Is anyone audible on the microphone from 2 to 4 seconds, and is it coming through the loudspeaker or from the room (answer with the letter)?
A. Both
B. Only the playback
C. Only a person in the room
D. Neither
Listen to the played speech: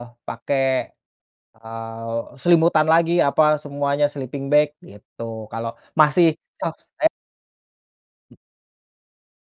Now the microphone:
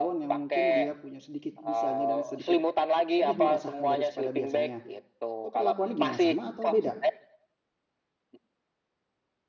A